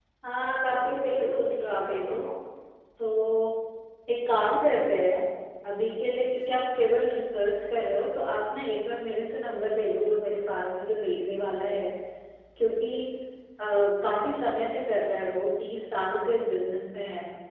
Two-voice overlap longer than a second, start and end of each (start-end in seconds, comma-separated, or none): 0.7-2.2